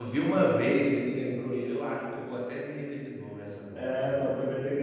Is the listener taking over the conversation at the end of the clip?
Yes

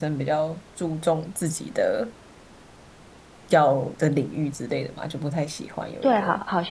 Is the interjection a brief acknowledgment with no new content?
No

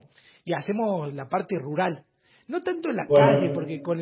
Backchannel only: Yes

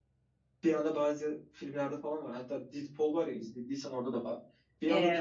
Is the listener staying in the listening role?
Yes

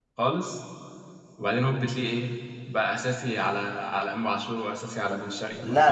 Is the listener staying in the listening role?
No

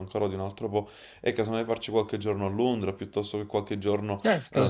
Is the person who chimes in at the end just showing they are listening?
No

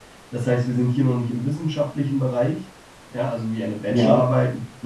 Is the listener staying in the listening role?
Yes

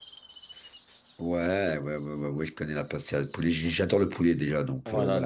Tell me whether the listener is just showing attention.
No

